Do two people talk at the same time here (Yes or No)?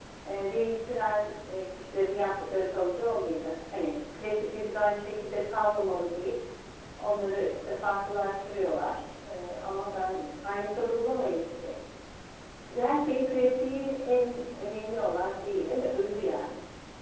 No